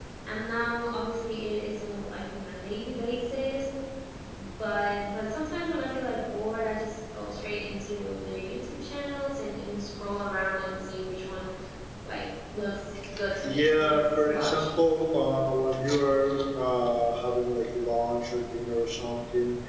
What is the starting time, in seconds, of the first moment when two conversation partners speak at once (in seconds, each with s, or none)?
13.4 s